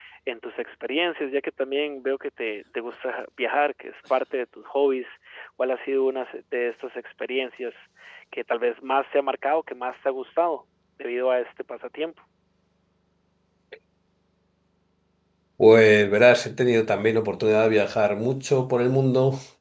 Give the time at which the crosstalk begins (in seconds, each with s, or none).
none